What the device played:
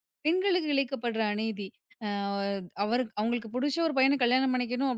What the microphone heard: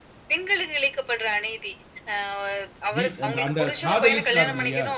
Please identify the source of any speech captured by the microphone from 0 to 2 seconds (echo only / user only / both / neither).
echo only